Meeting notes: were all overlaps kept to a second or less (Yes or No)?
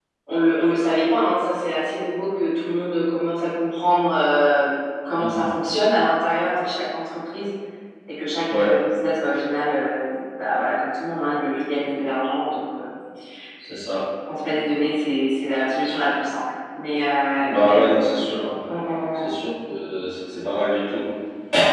Yes